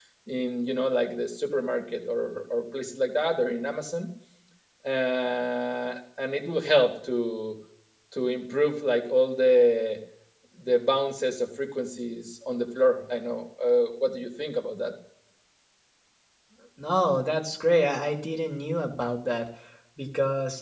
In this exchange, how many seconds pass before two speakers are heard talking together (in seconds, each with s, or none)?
none